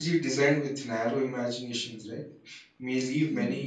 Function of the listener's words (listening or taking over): listening